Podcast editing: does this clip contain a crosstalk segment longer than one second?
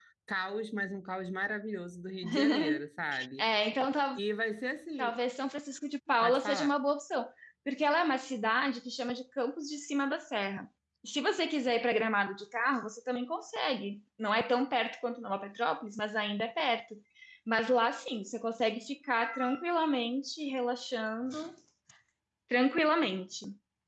No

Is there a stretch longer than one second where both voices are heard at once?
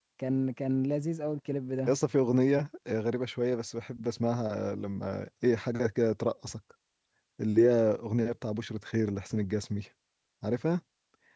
No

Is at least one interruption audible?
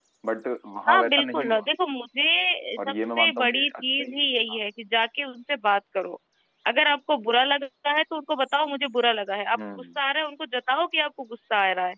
Yes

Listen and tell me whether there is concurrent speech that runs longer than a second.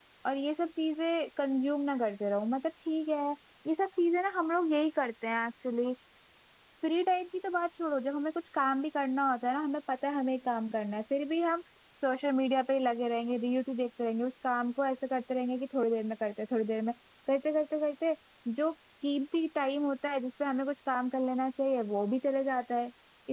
No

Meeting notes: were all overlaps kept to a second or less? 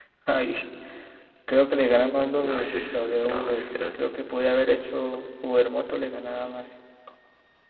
No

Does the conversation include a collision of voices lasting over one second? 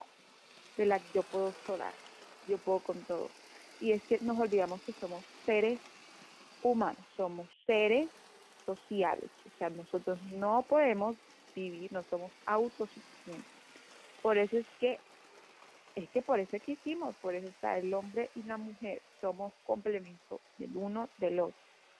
No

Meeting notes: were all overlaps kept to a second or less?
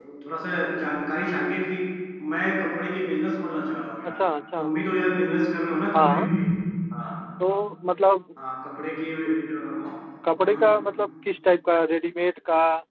Yes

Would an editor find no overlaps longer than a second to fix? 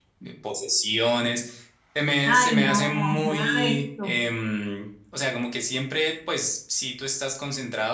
No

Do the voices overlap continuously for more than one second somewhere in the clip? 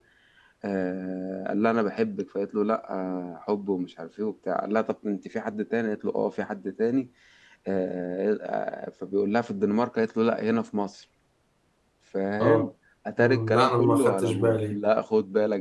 Yes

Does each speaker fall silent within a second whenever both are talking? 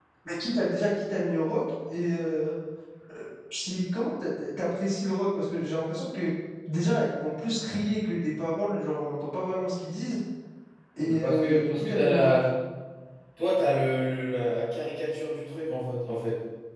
No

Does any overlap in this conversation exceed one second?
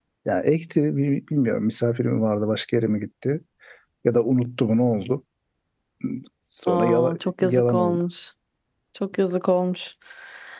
Yes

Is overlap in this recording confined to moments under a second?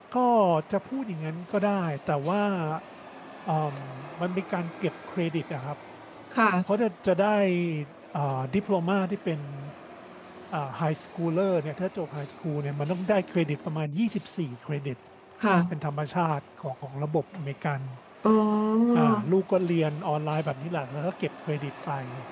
Yes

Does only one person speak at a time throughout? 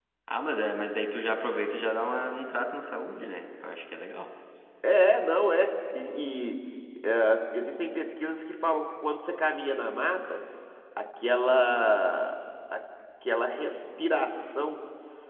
Yes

